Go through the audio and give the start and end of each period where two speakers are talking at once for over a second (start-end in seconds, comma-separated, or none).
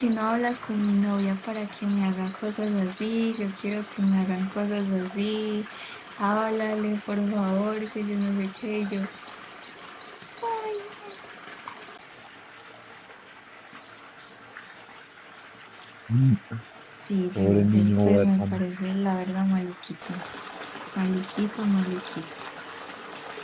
17.4-18.6